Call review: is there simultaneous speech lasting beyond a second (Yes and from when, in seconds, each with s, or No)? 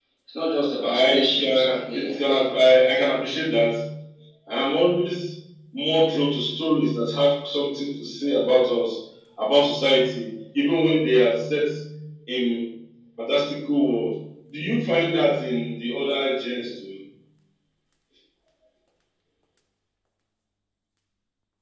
Yes, from 1.0 s